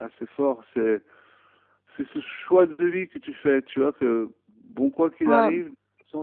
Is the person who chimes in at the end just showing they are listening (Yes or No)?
Yes